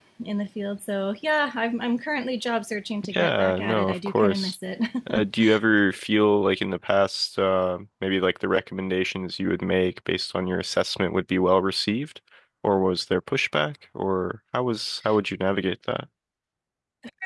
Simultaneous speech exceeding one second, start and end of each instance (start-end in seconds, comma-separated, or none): 3.1-4.5